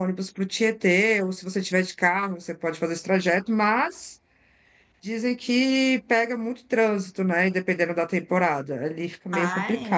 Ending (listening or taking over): taking over